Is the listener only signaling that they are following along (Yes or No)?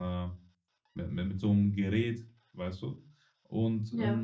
Yes